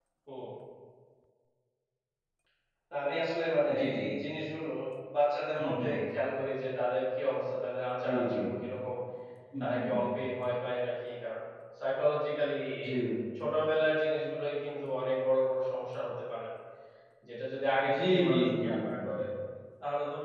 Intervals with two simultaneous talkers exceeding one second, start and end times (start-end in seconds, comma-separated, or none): 17.9-19.1